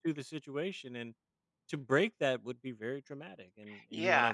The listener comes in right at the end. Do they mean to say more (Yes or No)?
Yes